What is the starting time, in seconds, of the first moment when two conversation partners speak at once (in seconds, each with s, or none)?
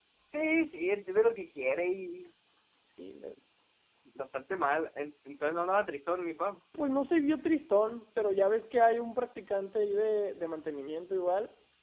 none